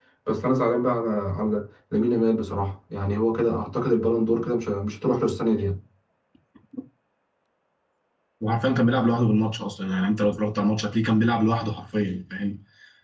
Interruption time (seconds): none

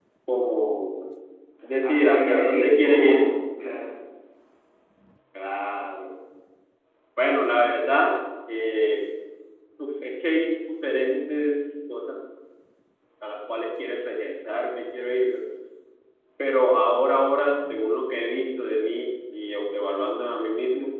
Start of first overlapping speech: 1.8 s

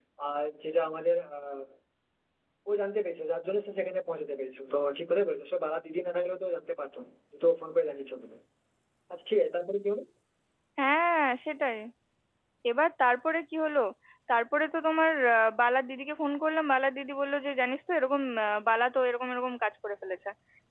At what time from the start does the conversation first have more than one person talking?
none

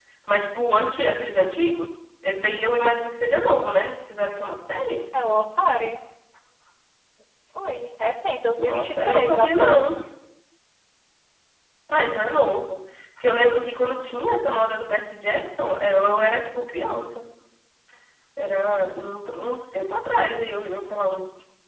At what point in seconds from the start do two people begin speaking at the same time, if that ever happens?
8.6 s

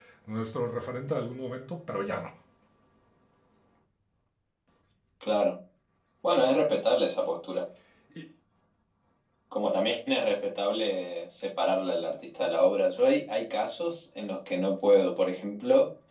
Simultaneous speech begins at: none

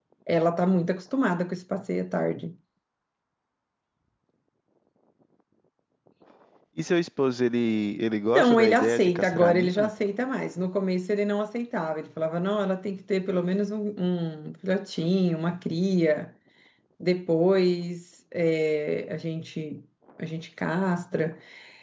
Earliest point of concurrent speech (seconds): 8.4 s

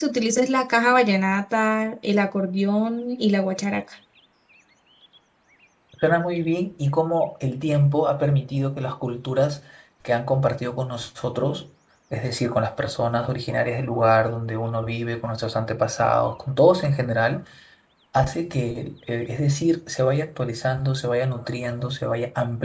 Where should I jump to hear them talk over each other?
none

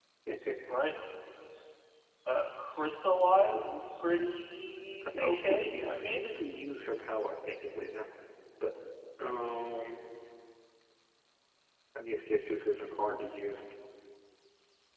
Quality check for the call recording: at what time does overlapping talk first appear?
5.0 s

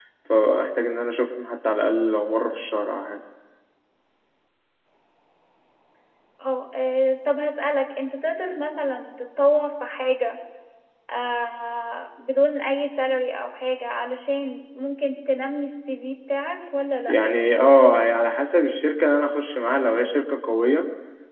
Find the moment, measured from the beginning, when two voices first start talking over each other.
none

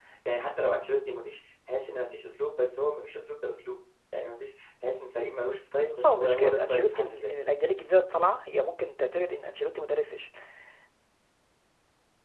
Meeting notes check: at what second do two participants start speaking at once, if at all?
5.9 s

